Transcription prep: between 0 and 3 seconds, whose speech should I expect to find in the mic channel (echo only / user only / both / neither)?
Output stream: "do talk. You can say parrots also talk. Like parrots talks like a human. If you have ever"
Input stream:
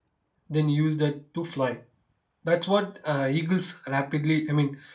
user only